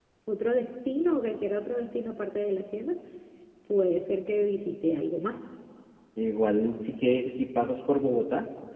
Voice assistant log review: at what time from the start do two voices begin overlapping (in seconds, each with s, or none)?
none